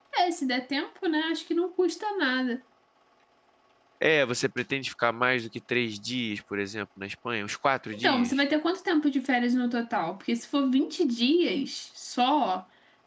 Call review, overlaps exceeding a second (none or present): none